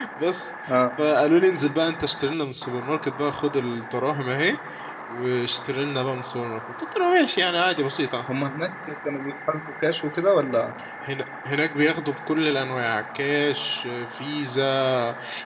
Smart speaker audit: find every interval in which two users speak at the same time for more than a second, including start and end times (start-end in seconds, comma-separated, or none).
none